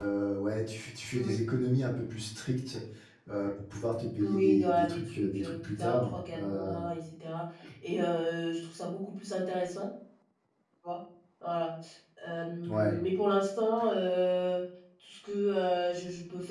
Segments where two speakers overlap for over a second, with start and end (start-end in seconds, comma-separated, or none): 4.2-6.8